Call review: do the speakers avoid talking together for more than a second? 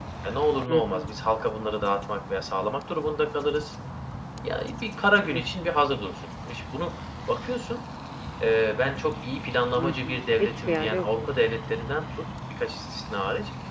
No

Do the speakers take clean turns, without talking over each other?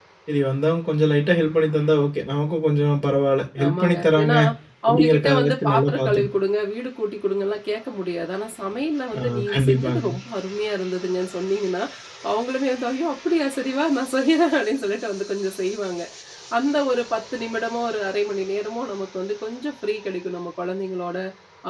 No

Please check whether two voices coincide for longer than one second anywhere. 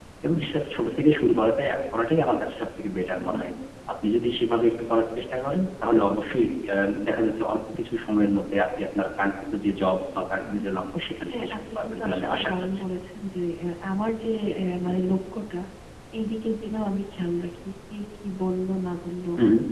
Yes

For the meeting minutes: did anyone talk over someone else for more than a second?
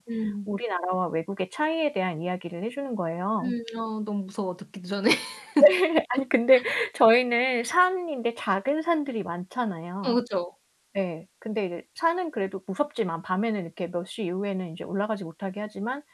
No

